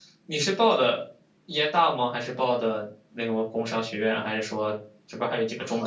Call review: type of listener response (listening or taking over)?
taking over